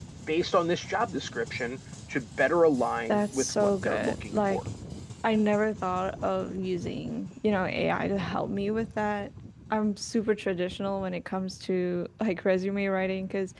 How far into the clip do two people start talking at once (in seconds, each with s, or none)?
3.1 s